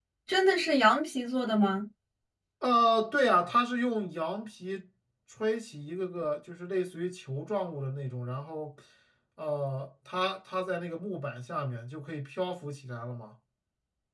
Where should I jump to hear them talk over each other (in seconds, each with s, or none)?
none